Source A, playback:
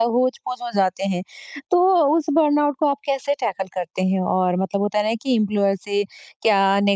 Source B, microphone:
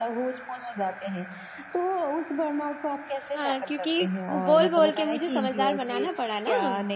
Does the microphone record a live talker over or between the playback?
Yes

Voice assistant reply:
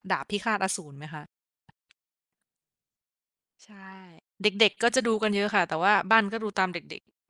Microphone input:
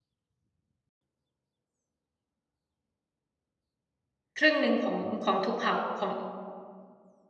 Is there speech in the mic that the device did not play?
Yes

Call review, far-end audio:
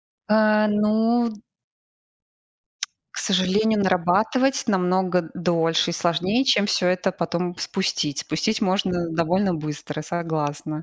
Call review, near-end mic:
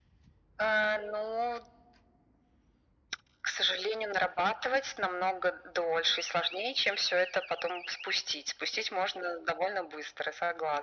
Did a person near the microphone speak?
No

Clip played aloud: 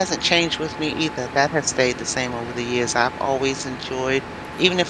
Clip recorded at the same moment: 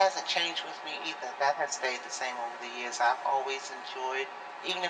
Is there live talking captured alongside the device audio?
No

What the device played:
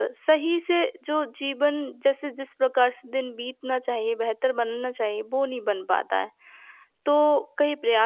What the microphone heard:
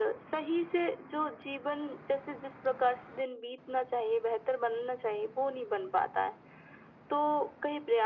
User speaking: No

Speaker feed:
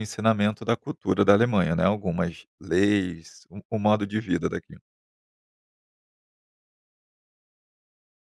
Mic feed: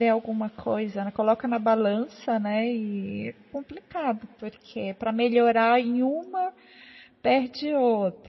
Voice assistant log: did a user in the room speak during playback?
Yes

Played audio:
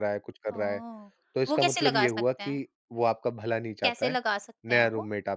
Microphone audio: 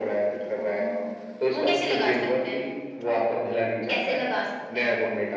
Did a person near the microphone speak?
No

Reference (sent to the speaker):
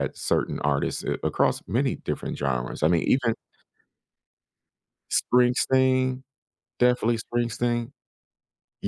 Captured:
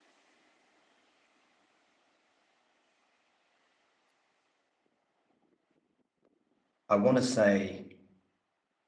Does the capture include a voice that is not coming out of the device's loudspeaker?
Yes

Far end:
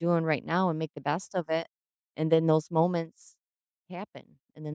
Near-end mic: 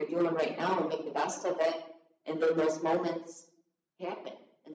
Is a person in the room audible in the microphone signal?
No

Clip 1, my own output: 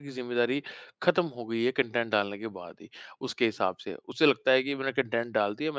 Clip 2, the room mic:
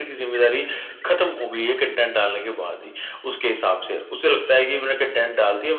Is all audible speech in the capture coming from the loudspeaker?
Yes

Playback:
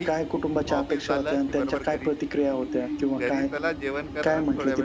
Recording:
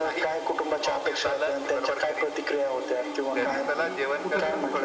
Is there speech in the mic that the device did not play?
Yes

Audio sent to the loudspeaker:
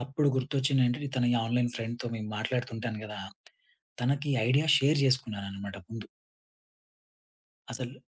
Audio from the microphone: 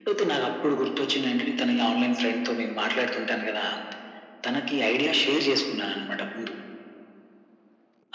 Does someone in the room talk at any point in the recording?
No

